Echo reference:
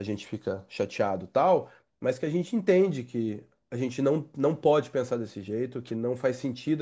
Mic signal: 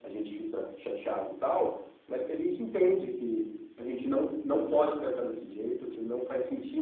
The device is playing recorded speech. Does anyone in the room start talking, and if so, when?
none

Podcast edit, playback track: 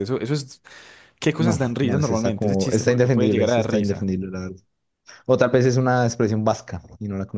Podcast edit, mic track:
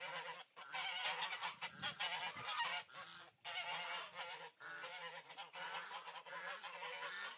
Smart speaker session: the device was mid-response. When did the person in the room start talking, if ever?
none

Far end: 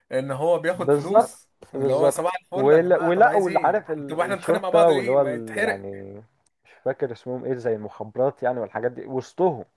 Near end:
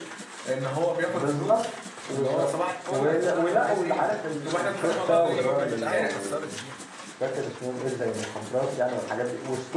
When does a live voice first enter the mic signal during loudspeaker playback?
4.9 s

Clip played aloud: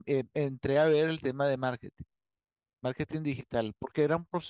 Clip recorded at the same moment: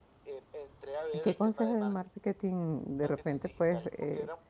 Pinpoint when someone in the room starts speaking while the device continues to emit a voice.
1.2 s

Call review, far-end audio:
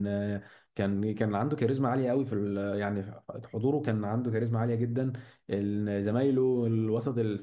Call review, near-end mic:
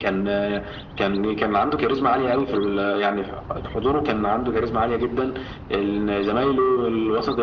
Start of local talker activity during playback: none

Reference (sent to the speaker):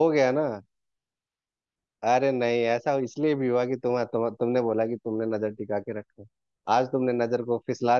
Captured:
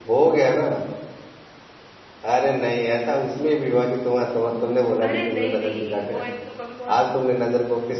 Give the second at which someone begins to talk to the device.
5.0 s

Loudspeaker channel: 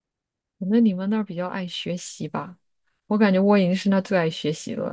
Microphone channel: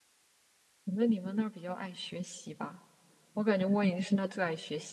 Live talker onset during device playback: none

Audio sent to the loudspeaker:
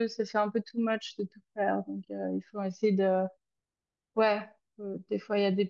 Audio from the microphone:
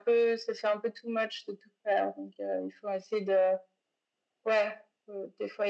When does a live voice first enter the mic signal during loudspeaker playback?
none

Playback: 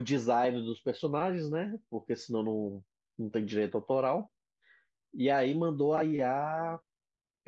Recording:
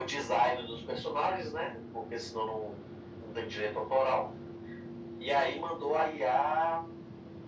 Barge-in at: none

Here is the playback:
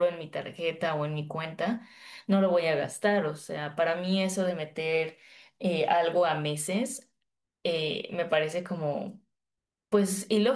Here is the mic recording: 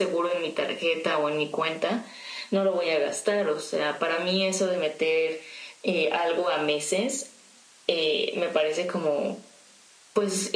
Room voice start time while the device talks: none

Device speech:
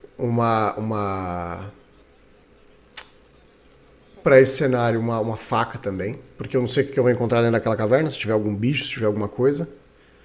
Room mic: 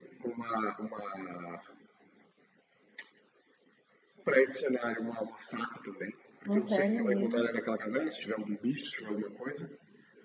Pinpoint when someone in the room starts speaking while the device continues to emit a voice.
6.4 s

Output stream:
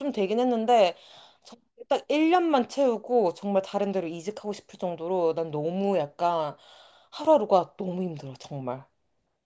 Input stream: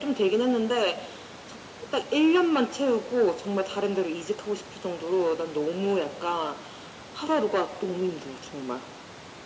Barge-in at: none

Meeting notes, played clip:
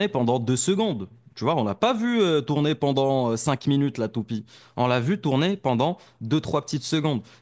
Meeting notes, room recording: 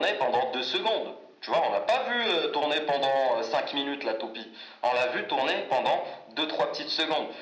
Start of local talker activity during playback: none

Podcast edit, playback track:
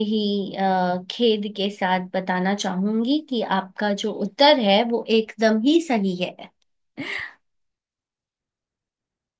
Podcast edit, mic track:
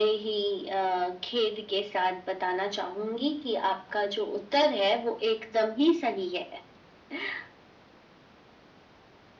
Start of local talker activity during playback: none

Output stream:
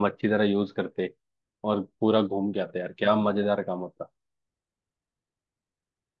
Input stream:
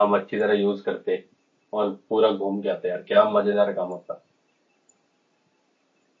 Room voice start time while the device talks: none

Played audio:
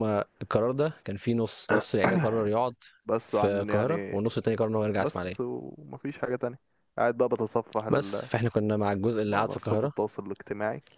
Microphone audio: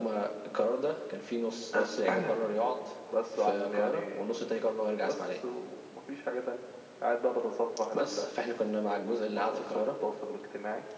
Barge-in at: none

